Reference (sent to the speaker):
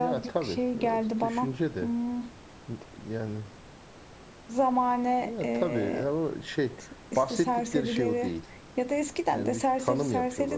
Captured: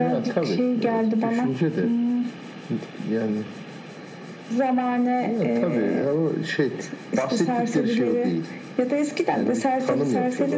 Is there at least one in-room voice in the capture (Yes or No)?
No